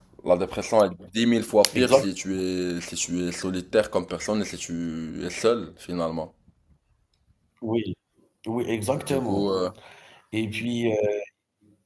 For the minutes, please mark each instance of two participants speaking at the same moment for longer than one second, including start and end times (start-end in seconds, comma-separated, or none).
none